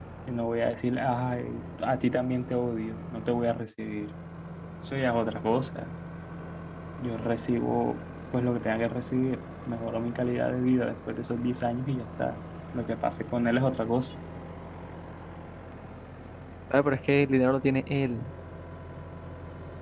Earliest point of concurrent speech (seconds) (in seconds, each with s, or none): none